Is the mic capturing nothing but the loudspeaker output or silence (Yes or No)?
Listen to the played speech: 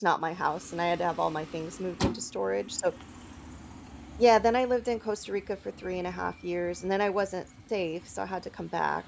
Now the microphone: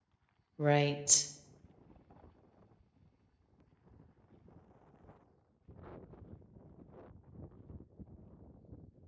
No